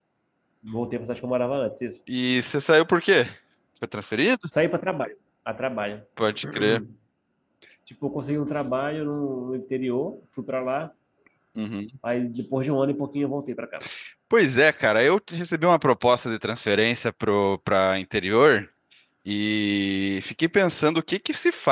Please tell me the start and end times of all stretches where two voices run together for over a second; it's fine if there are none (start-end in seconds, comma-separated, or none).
none